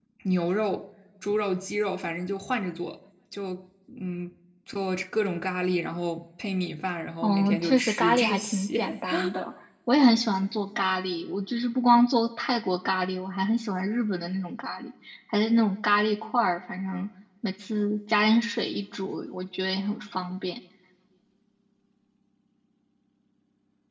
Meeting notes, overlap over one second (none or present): present